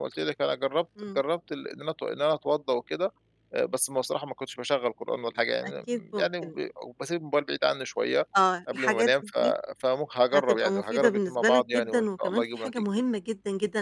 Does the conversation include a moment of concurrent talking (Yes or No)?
Yes